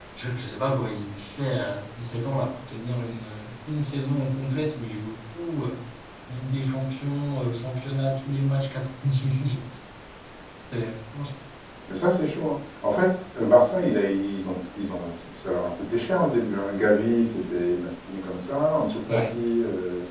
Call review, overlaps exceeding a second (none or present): none